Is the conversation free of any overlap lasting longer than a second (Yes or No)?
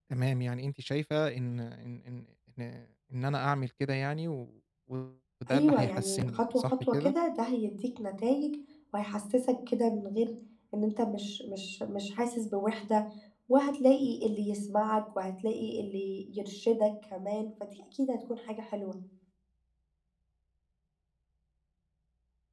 No